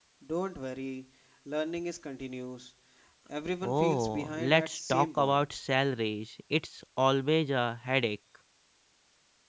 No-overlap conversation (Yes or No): No